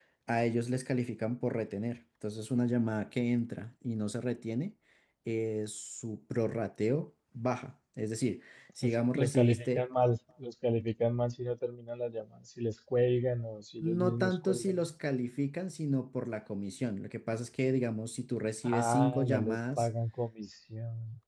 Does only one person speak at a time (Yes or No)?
No